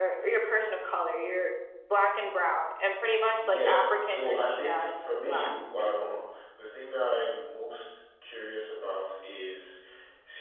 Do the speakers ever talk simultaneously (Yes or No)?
Yes